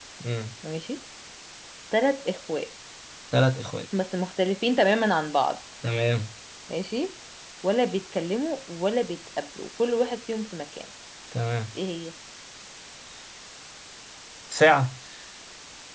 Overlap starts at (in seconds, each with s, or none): none